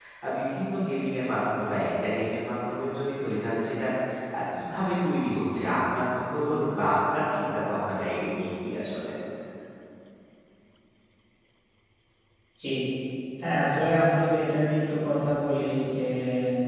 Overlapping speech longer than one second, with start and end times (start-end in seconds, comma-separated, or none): none